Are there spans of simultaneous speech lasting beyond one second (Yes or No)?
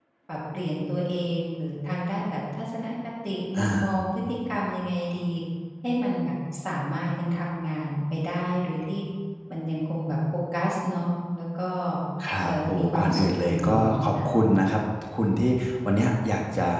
Yes